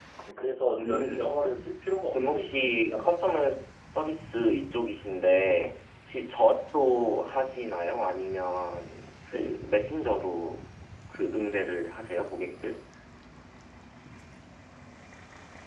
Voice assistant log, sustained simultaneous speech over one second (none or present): present